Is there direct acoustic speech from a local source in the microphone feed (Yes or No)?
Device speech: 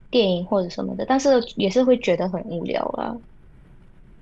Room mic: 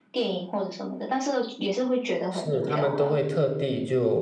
Yes